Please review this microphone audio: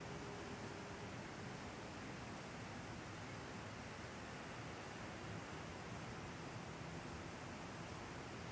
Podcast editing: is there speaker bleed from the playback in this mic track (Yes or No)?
No